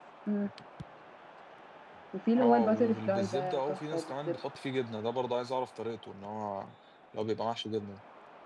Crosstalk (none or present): present